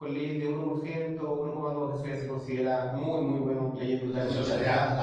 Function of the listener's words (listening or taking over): taking over